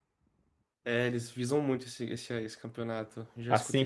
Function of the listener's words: taking over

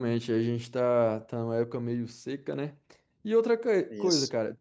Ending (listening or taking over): listening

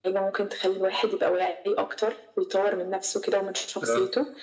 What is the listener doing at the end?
listening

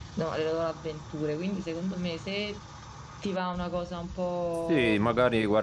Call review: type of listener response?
taking over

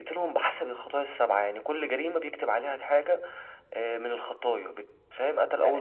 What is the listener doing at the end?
taking over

